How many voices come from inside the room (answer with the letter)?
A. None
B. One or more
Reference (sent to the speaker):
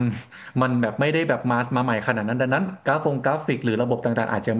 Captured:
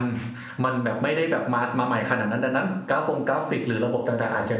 A